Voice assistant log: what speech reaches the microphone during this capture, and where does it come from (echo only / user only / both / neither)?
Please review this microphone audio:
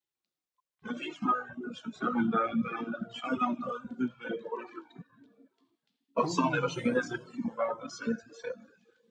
both